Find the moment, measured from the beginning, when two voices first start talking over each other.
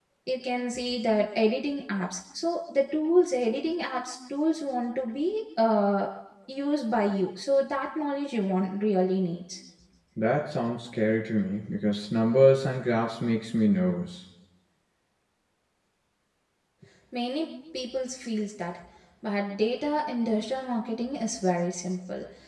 none

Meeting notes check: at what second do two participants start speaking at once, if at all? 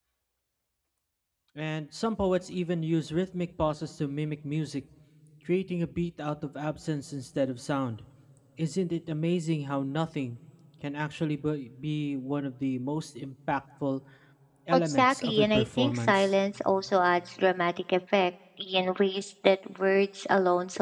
15 s

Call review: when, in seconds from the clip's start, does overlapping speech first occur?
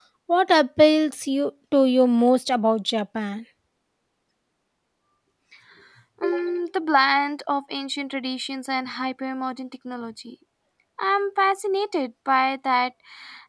none

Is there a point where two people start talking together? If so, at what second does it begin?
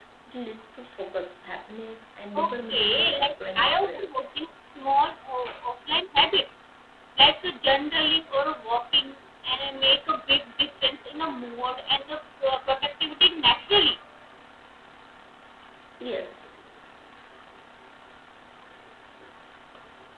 2 s

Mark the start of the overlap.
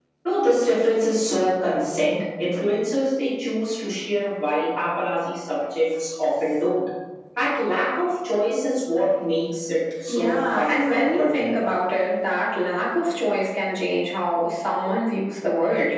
10 s

